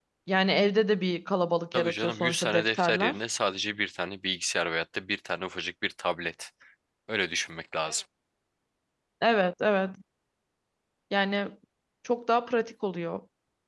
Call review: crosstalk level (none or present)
present